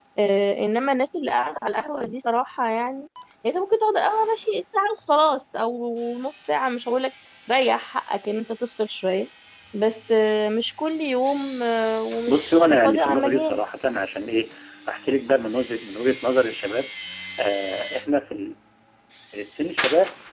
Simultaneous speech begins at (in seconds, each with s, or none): 12.3 s